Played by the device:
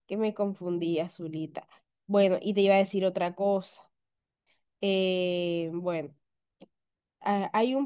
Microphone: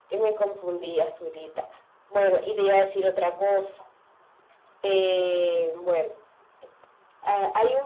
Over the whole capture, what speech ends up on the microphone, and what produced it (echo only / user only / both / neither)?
echo only